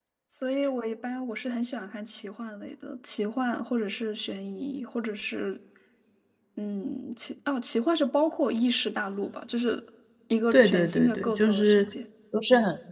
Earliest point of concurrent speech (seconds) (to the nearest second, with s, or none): 11 s